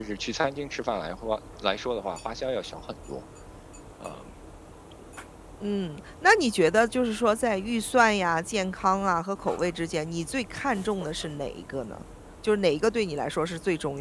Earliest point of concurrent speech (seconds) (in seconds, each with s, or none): none